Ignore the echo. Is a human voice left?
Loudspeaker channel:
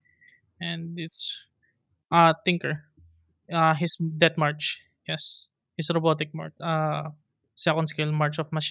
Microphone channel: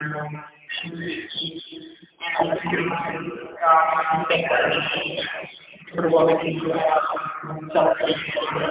No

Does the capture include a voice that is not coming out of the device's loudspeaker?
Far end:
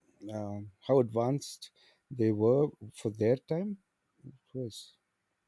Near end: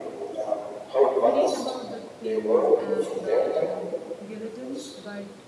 Yes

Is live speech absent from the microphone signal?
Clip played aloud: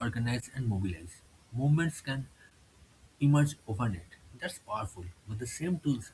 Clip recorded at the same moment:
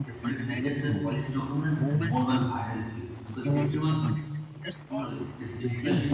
No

